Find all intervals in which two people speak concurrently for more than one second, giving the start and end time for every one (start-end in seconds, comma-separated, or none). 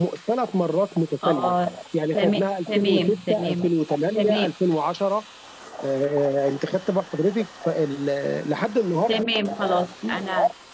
2.1-3.7